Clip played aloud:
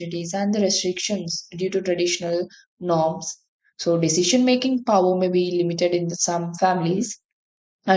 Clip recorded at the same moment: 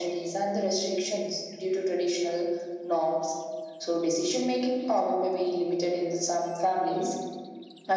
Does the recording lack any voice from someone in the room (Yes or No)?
Yes